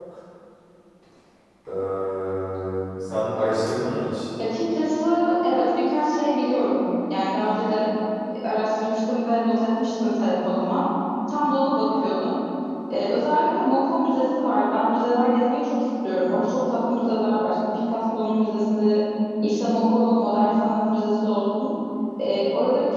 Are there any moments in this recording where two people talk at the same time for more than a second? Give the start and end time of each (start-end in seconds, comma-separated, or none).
none